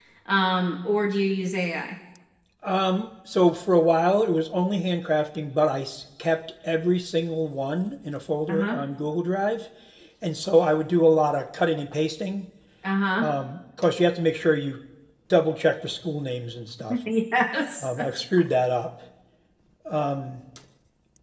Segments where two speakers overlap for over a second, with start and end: none

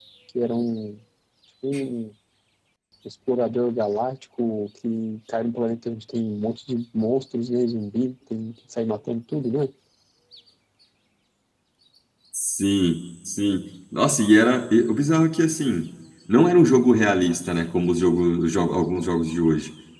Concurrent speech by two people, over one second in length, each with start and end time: none

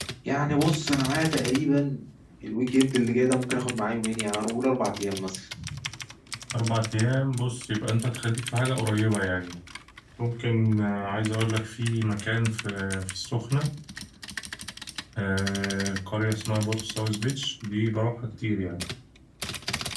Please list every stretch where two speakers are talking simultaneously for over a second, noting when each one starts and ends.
none

